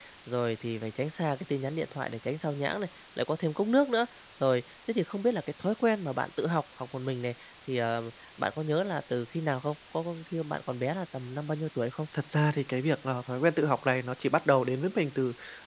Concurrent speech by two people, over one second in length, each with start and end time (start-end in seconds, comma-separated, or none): none